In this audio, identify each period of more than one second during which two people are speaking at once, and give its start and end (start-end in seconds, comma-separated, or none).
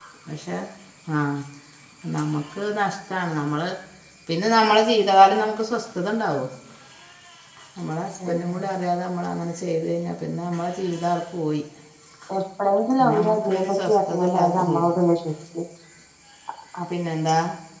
13.0-15.0